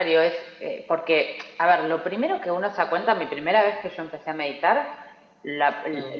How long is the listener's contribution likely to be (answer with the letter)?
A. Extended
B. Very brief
B